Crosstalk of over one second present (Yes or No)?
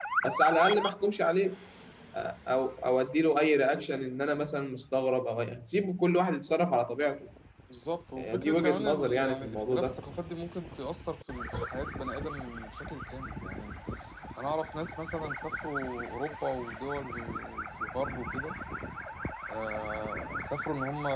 Yes